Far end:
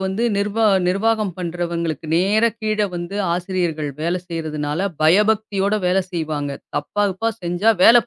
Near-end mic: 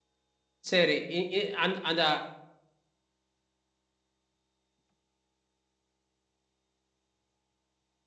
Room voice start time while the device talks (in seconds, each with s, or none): 0.7 s